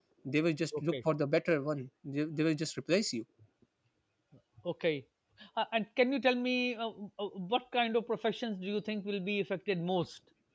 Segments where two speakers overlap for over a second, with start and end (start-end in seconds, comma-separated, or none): none